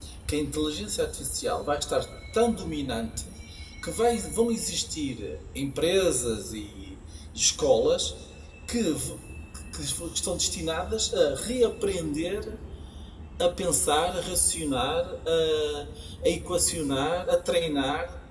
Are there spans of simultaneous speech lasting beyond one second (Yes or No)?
No